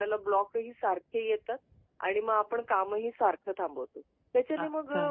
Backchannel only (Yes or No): Yes